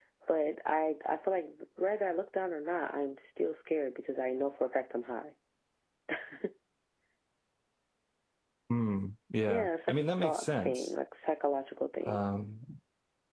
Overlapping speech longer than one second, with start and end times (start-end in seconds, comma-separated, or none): 9.4-10.9